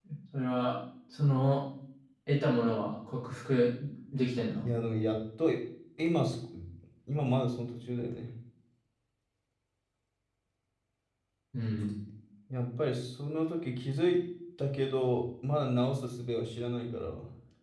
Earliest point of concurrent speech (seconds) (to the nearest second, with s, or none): none